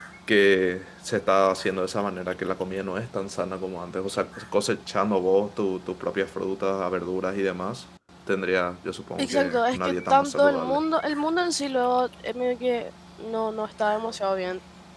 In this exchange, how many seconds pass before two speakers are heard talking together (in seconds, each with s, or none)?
9.2 s